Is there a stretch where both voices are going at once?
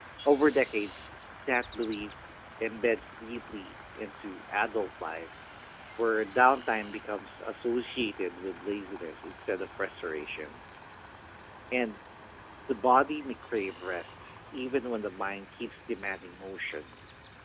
No

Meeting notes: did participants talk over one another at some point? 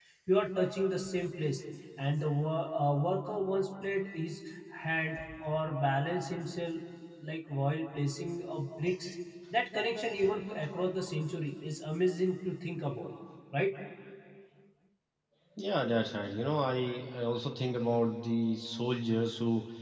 No

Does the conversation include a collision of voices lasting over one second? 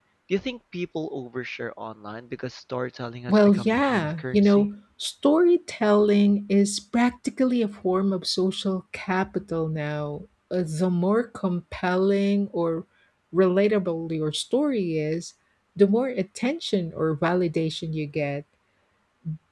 Yes, from 3.3 s

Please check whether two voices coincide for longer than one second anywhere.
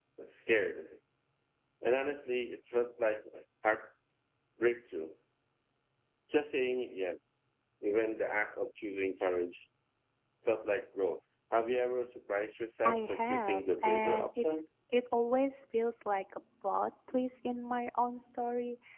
Yes, from 12.8 s

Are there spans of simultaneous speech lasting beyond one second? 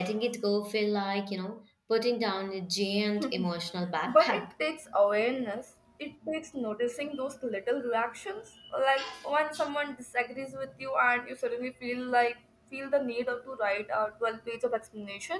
No

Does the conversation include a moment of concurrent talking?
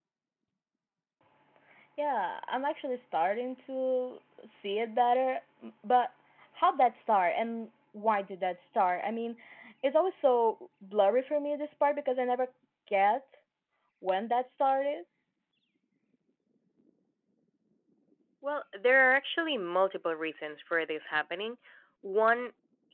No

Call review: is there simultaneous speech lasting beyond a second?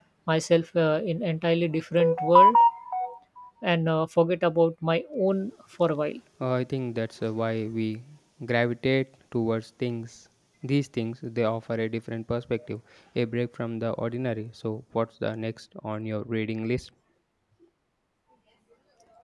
No

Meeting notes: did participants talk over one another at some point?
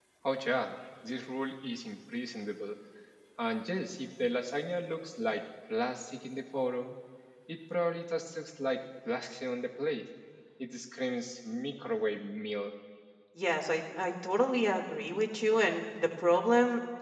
No

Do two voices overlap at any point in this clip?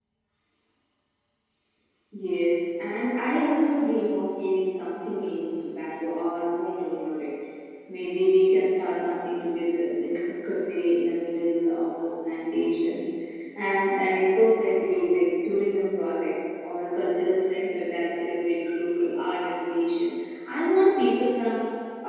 No

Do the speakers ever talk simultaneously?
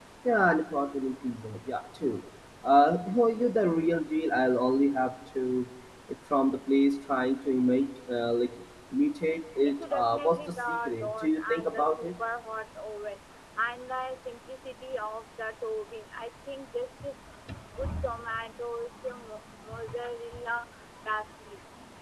Yes, from 9.6 s

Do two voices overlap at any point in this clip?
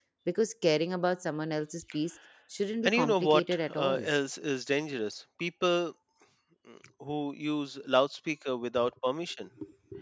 Yes, from 2.8 s

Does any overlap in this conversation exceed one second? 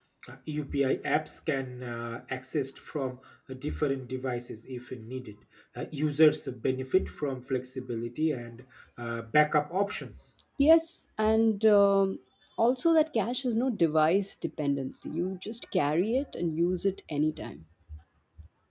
No

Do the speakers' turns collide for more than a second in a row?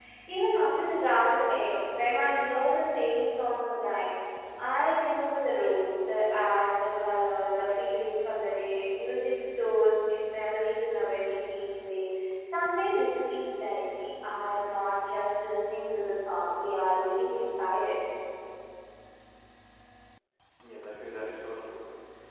No

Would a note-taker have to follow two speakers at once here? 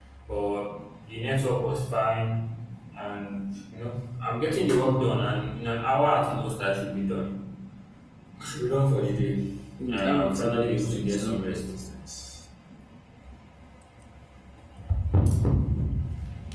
Yes, from 9.9 s

